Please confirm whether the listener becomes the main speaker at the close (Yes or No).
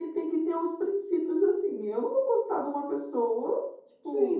Yes